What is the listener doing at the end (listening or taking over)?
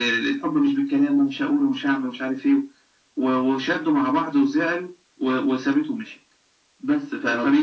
listening